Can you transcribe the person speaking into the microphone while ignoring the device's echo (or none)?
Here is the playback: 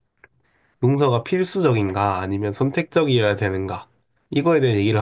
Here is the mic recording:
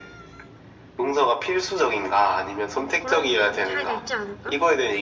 음, 그런 것도 약간 차이가 있지 않을까?